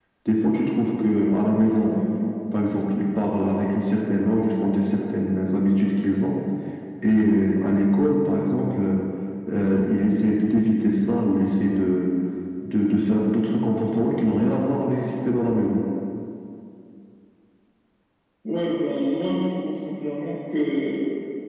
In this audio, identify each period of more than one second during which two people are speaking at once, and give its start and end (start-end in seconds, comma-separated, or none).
none